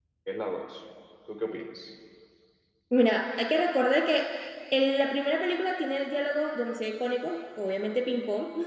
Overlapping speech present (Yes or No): No